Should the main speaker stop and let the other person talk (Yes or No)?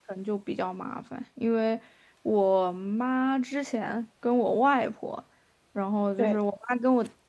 No